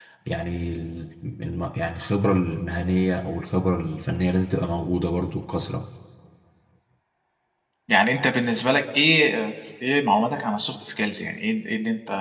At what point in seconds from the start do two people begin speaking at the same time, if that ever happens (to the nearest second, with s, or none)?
none